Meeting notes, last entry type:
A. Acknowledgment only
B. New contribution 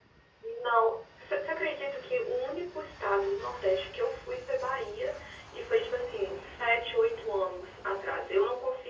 A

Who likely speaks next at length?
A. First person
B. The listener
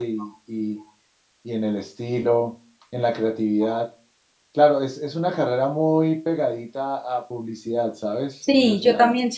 B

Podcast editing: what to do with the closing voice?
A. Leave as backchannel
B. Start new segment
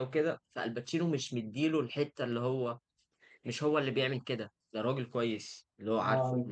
A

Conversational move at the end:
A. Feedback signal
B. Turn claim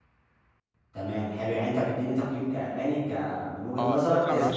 B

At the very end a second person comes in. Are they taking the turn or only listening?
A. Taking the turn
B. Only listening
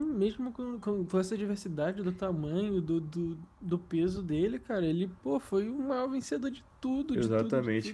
A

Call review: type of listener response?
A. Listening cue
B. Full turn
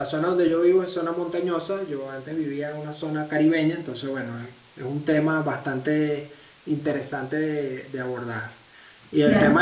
A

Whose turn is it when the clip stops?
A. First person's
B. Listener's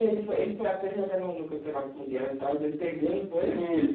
B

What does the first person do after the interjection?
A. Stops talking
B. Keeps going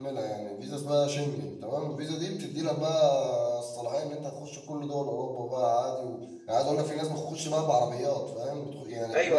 A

